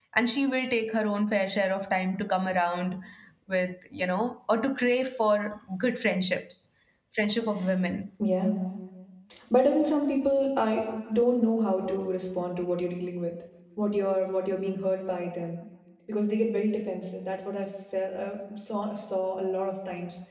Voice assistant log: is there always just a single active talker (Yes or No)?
Yes